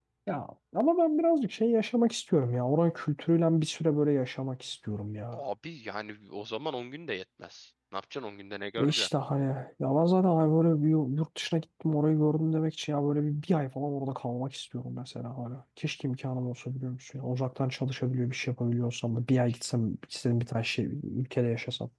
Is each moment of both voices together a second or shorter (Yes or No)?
Yes